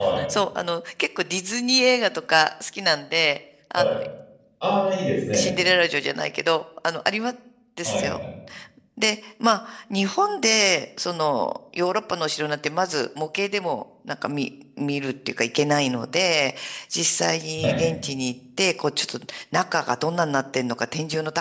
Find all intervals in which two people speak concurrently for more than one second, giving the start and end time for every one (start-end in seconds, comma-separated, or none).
none